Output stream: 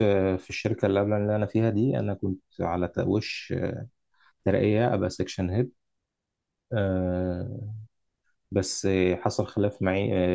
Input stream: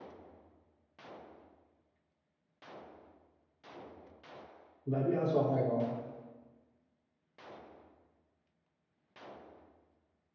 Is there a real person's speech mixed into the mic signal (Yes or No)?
Yes